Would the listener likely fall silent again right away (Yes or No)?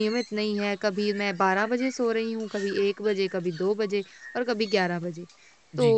Yes